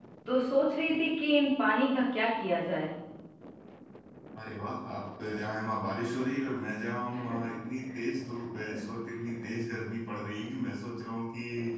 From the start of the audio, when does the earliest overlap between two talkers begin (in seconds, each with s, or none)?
none